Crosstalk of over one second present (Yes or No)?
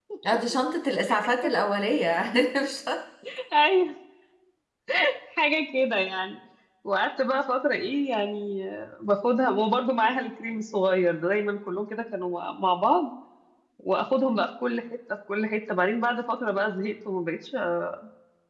No